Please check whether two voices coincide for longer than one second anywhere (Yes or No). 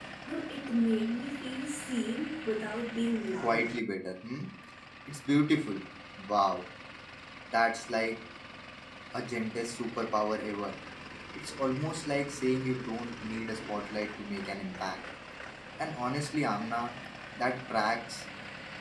No